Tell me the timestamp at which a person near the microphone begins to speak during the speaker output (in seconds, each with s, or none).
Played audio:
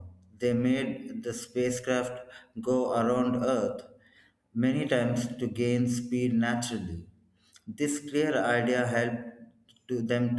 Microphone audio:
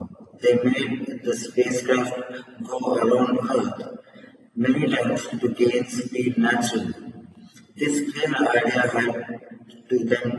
none